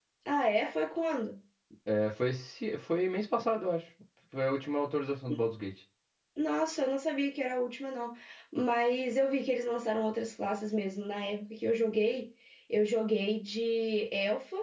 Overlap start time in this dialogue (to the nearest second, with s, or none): none